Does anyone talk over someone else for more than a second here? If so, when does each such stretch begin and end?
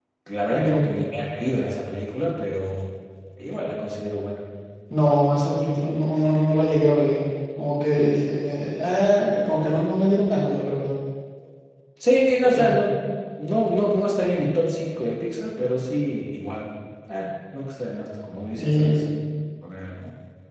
none

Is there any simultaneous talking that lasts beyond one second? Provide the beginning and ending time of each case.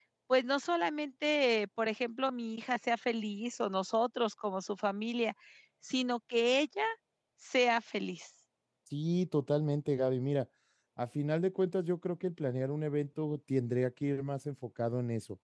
none

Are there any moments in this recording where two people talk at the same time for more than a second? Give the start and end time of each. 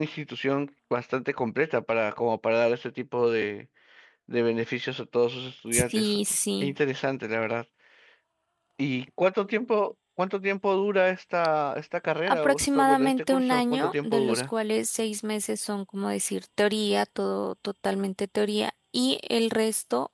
12.3-14.5

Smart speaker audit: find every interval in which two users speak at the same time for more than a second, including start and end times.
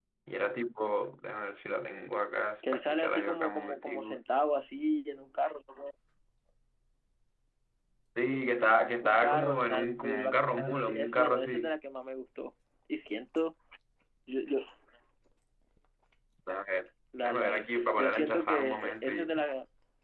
2.7-4.2, 9.0-11.7, 17.2-19.4

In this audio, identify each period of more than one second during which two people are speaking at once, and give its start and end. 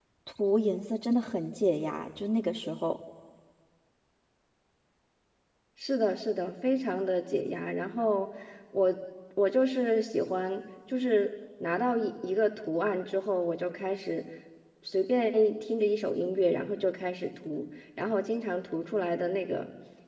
none

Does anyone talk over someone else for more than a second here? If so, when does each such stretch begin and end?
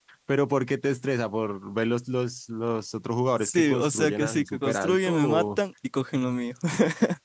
3.4-5.6

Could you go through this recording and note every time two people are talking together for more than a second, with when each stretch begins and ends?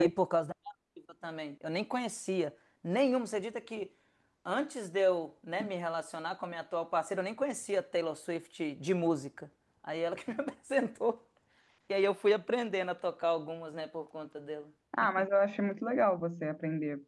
none

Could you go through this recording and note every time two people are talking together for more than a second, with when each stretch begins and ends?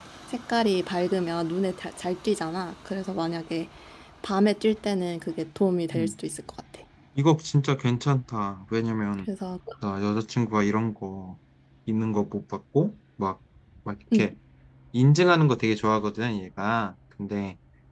none

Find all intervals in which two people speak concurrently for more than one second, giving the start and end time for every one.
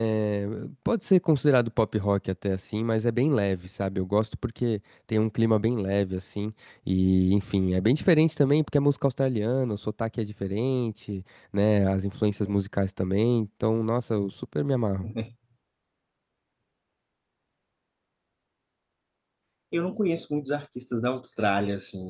none

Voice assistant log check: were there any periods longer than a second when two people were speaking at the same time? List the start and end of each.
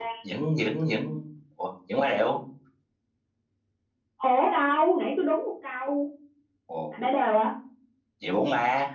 none

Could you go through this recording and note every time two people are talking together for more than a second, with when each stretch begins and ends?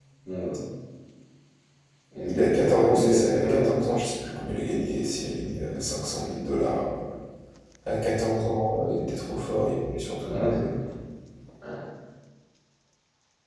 2.3-3.8

